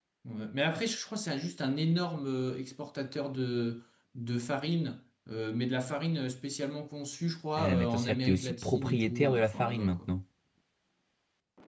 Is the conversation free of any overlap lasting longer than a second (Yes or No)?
No